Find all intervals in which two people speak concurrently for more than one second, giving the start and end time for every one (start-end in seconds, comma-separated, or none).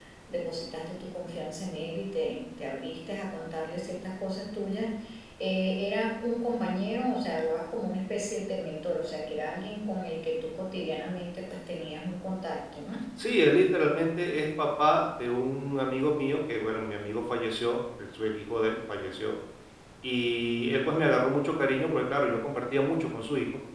none